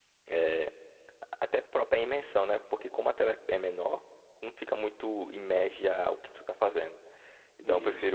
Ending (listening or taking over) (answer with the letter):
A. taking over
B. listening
B